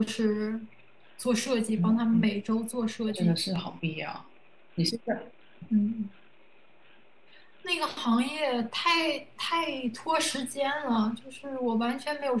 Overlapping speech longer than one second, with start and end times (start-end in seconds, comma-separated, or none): none